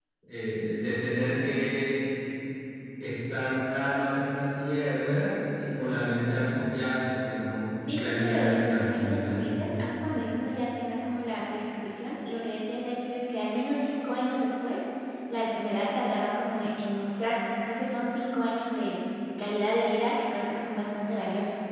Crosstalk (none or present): present